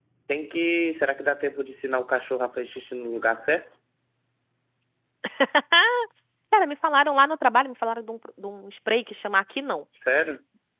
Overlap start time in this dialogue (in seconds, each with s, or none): none